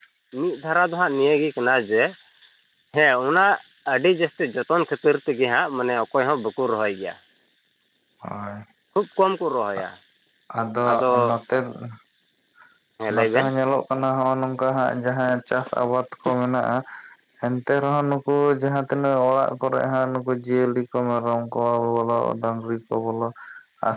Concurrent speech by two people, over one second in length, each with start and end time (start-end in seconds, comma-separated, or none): none